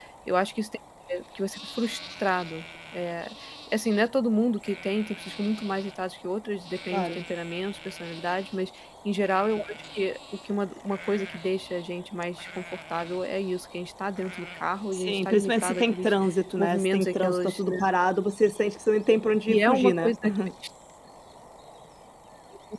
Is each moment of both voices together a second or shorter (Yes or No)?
No